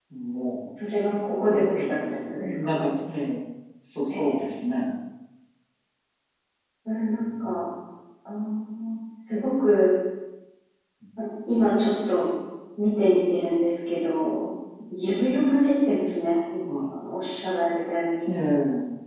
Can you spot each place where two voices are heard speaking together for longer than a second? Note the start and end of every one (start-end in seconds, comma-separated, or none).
1.5-2.8